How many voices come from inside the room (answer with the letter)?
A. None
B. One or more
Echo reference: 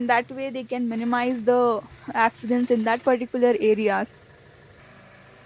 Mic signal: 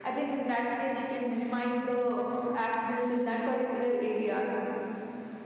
A